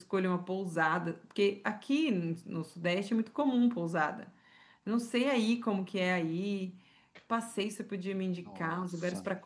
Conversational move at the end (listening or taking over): listening